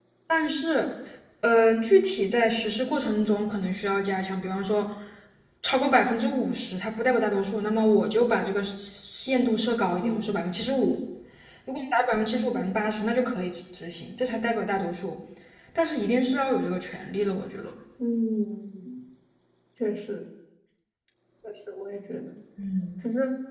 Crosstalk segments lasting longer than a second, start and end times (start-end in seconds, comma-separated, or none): none